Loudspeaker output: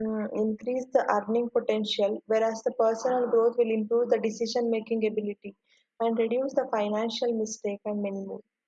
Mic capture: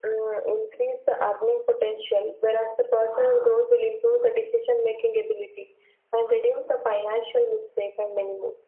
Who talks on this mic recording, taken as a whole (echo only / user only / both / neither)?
echo only